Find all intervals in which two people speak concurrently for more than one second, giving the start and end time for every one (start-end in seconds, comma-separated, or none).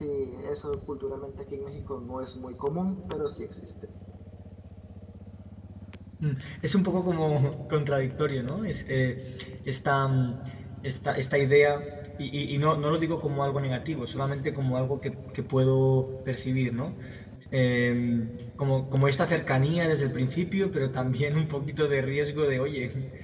none